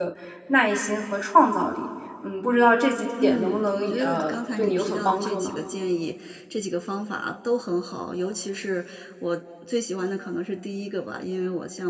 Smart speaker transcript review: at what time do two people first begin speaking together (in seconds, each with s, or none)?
3.2 s